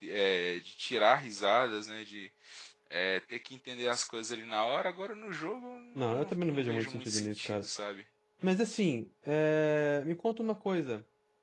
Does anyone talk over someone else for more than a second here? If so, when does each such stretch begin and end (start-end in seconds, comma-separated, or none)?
6.1-7.7